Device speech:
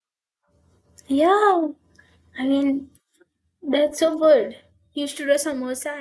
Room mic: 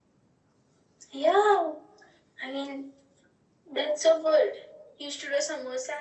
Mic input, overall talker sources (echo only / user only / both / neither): echo only